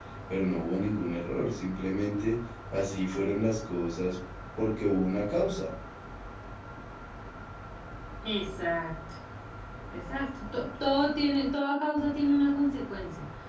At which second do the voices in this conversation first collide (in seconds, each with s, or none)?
none